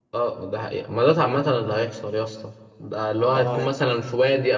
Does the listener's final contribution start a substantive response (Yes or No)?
No